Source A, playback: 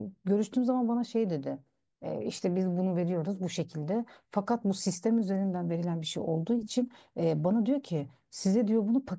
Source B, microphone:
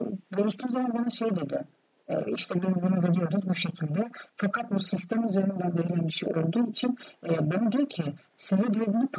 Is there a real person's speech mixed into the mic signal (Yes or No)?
No